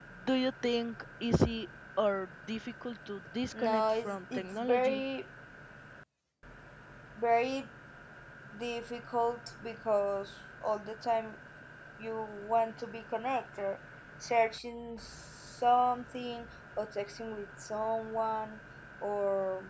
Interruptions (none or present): present